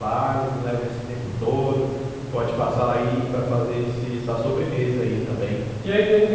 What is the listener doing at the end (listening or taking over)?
taking over